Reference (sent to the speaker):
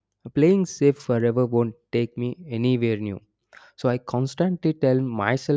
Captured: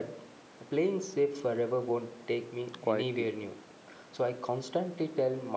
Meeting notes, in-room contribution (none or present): present